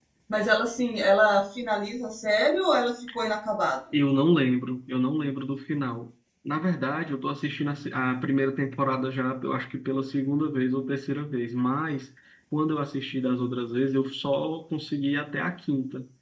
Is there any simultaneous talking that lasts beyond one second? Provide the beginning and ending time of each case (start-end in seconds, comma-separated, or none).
none